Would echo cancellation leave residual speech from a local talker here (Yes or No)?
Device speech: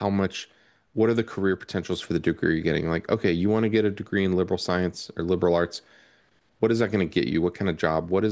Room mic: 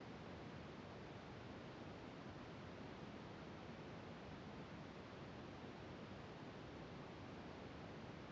No